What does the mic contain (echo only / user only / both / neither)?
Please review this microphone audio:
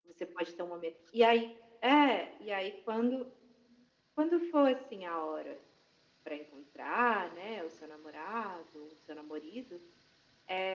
echo only